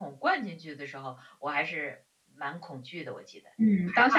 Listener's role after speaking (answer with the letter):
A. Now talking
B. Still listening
A